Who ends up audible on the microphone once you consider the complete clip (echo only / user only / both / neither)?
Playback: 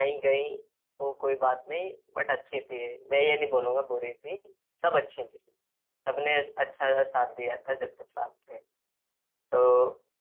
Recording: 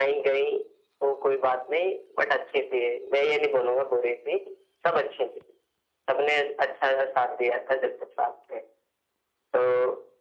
echo only